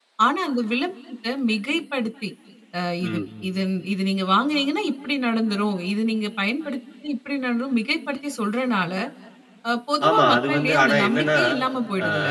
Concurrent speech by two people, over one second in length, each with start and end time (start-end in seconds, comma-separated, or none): 10.1-11.4